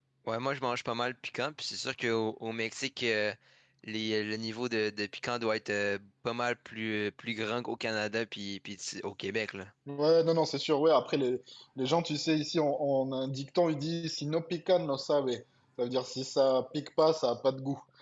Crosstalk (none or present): none